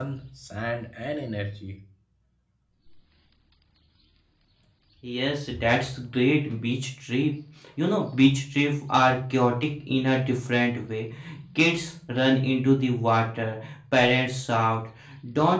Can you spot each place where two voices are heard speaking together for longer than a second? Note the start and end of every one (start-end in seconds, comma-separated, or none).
none